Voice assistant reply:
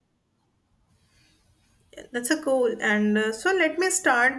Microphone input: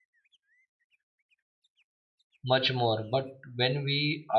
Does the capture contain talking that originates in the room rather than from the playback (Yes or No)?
Yes